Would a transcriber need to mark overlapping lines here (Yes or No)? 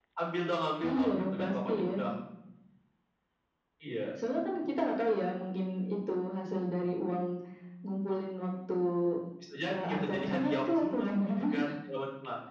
Yes